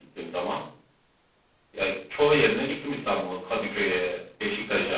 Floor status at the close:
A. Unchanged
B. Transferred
B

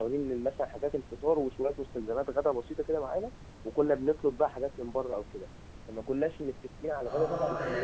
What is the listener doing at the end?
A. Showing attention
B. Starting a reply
B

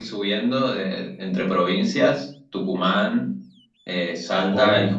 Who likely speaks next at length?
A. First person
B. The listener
A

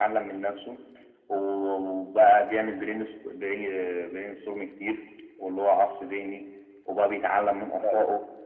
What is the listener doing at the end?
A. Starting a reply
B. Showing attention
B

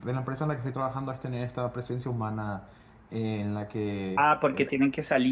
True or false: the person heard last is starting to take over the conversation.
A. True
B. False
A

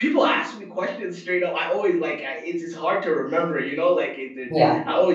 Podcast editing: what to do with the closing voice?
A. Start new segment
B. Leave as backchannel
B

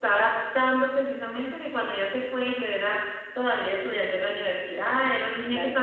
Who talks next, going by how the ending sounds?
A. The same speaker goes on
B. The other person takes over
A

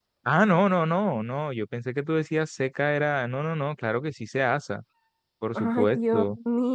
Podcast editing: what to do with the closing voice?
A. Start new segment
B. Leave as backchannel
A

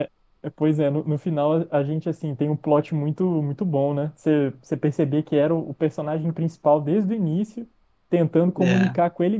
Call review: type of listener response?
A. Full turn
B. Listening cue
B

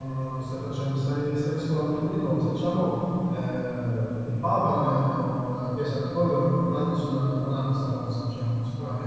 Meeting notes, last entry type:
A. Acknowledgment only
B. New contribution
A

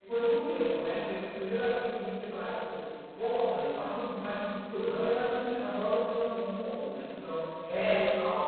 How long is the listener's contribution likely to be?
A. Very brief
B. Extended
A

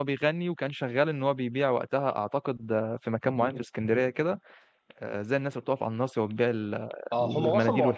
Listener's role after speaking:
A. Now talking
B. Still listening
A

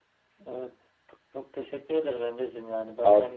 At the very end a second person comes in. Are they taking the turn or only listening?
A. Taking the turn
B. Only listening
B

